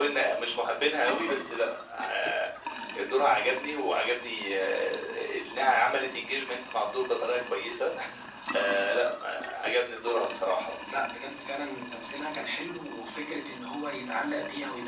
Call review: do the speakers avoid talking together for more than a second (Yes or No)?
Yes